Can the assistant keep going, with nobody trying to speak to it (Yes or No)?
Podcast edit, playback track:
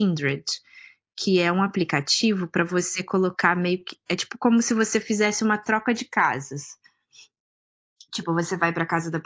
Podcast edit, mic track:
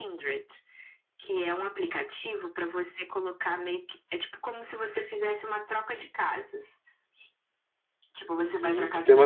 No